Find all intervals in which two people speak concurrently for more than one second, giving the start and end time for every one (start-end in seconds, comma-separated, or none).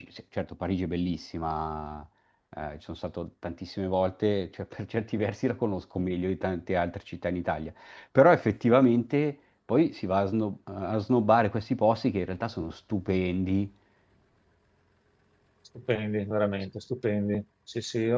none